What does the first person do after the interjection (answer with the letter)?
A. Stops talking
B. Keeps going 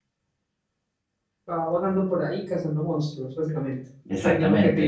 A